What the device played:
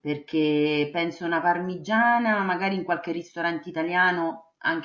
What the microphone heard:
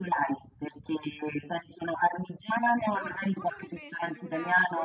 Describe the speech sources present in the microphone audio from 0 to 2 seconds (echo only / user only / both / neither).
echo only